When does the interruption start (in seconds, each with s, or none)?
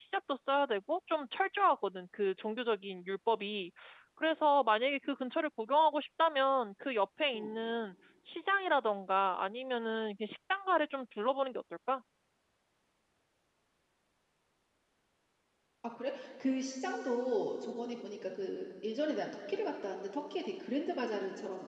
none